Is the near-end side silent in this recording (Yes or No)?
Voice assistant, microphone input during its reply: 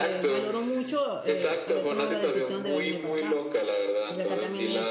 No